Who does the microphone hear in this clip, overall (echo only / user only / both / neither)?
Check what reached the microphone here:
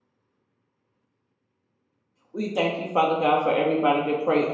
user only